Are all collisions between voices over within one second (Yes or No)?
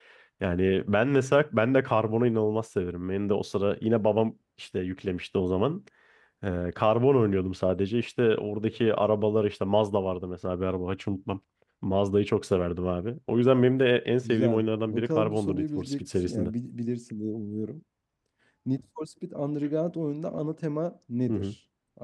No